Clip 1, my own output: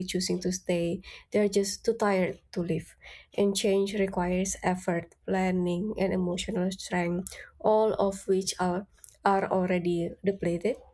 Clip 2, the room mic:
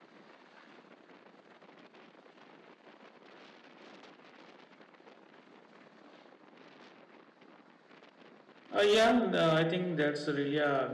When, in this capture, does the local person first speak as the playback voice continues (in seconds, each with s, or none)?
8.7 s